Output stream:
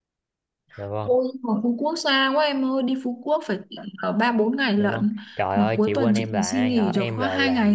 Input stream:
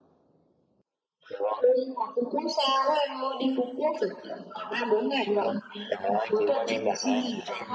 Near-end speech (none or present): none